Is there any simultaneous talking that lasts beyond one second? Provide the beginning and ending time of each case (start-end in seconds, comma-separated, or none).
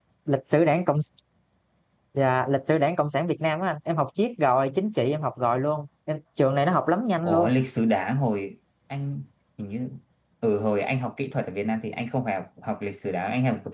none